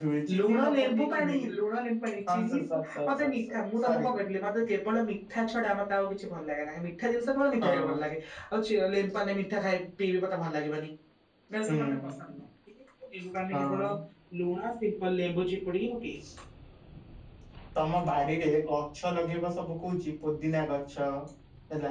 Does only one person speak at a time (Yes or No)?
No